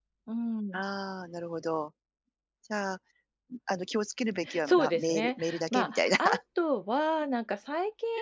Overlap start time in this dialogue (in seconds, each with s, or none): 4.5 s